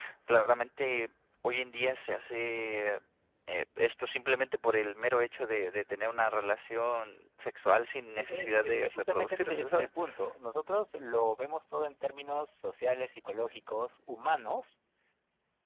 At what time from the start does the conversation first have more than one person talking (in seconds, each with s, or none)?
8.2 s